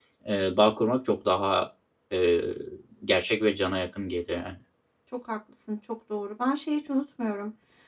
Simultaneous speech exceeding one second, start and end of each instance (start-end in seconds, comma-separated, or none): none